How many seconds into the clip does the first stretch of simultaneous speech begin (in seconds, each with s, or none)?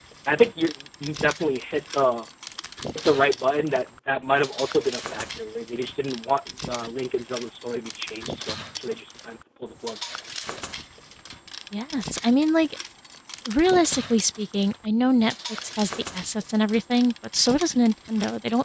none